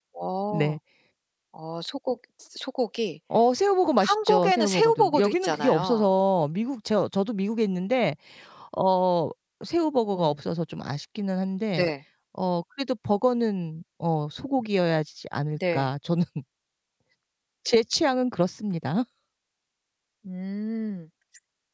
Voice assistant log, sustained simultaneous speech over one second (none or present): present